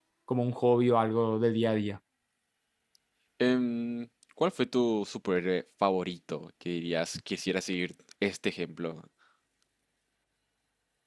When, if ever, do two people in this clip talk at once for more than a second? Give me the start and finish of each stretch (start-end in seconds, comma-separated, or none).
none